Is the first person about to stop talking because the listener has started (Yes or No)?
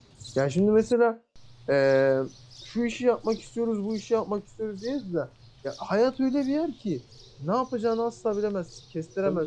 Yes